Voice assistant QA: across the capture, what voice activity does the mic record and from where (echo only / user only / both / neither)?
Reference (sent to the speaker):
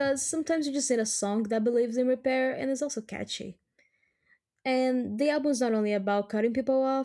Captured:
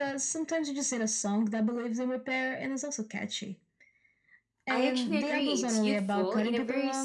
both